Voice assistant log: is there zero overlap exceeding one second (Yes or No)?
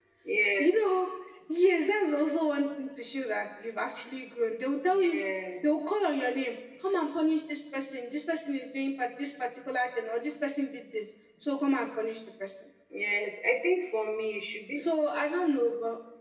Yes